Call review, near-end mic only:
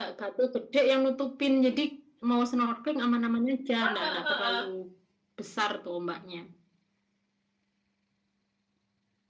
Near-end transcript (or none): heeh, heeh.